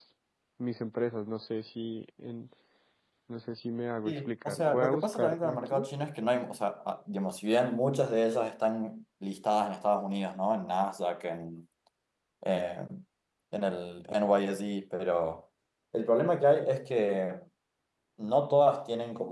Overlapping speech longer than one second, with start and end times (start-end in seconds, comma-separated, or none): 4.0-5.9